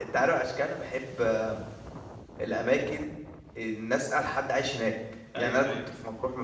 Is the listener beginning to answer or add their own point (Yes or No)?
No